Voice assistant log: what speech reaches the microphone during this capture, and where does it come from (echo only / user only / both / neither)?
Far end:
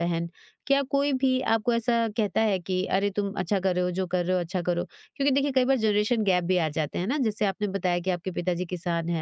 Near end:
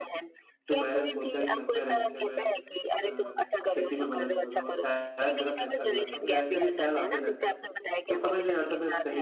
both